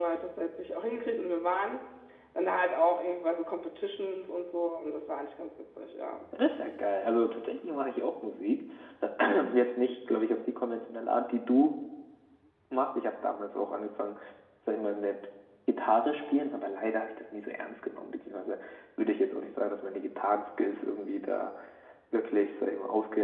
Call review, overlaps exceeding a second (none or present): none